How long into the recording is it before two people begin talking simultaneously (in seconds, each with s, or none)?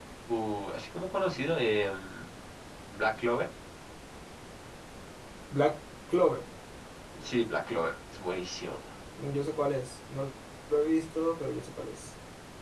none